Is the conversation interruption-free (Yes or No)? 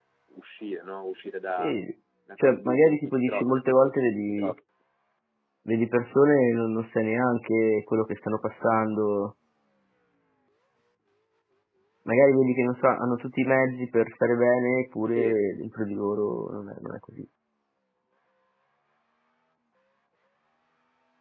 No